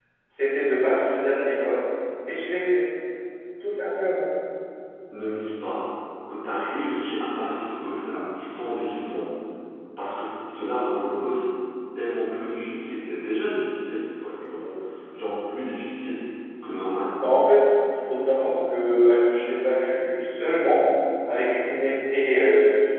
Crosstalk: none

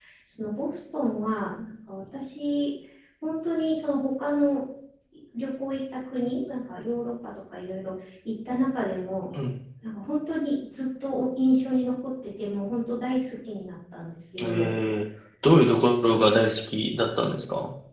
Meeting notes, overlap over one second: none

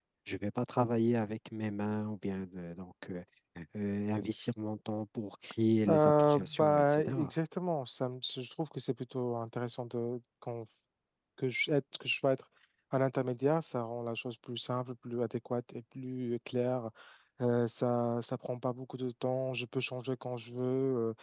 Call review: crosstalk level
present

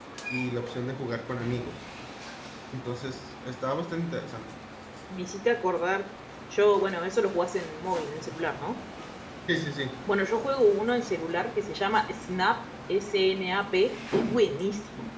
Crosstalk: none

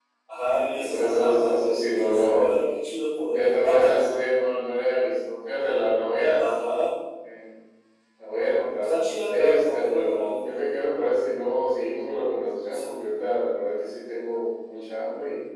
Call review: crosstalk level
present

